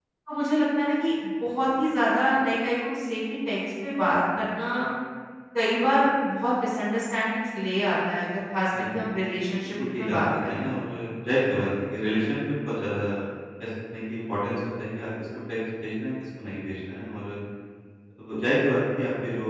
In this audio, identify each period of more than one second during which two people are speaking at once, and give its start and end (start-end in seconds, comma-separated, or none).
9.6-10.8